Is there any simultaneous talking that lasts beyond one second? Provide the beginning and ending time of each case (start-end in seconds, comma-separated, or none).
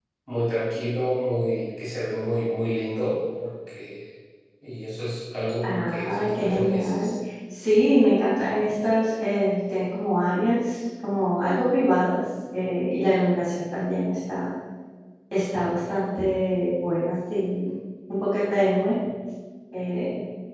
5.6-7.1